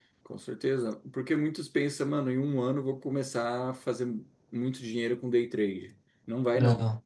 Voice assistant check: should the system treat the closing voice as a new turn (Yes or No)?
No